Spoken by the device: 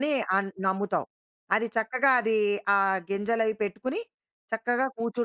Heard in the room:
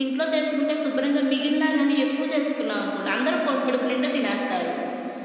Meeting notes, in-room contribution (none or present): present